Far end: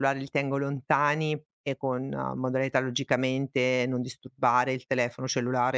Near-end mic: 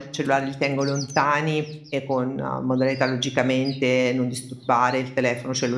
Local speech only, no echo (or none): none